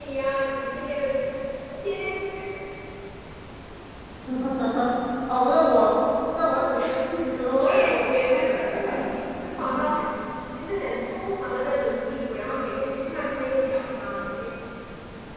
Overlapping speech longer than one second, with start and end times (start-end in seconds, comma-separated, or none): 7.5-9.1